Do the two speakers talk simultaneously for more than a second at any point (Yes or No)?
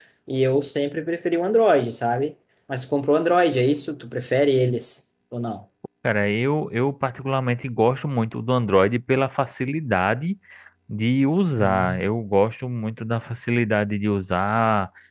No